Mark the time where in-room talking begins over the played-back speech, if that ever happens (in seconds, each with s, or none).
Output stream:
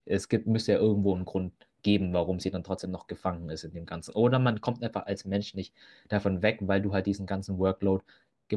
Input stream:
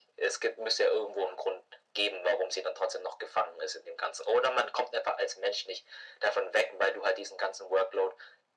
none